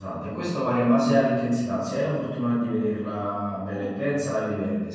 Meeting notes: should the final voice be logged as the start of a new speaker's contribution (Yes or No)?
No